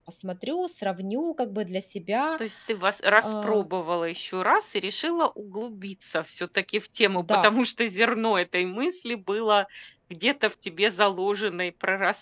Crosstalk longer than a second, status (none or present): none